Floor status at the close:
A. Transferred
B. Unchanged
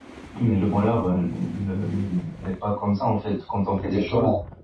B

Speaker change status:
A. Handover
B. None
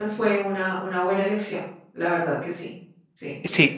A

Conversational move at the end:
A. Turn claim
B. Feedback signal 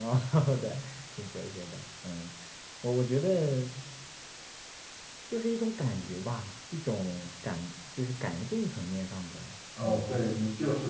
A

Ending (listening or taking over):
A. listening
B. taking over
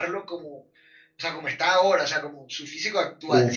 B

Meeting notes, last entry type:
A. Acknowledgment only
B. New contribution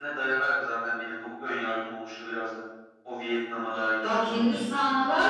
B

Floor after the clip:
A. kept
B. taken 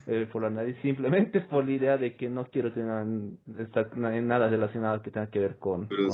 B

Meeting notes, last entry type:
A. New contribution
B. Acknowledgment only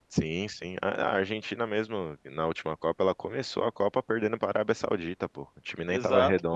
A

